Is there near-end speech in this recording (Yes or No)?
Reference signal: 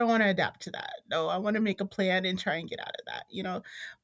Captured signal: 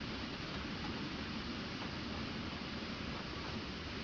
No